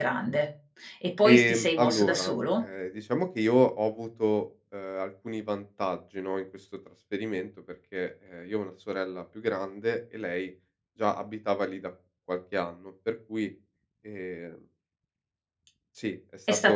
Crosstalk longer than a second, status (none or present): present